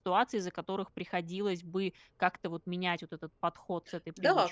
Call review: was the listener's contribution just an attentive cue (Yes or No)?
No